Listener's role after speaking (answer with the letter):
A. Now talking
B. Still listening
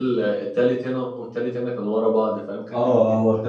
A